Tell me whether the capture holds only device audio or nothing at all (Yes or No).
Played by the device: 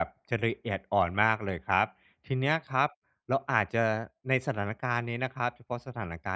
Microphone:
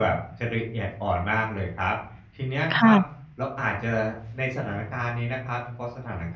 No